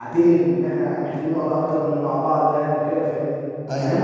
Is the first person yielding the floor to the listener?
No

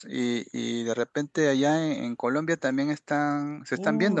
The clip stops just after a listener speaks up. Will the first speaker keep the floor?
No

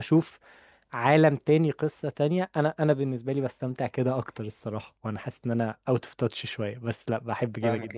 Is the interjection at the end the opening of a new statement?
Yes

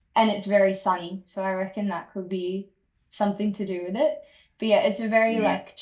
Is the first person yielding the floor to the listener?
No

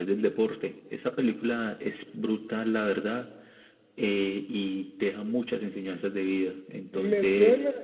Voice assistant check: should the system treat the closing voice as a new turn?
Yes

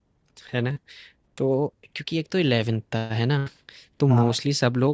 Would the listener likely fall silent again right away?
Yes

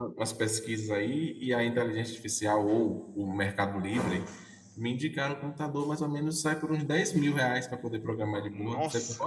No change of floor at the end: No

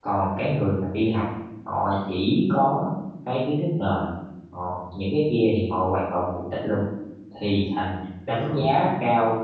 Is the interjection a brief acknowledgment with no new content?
Yes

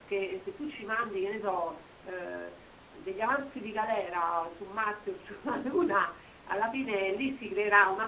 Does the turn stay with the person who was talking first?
Yes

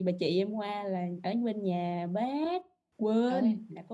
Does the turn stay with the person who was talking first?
No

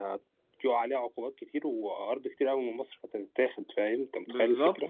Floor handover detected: Yes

